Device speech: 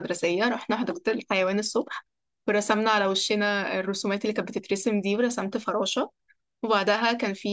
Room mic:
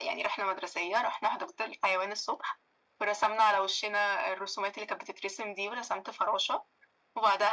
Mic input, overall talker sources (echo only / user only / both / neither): echo only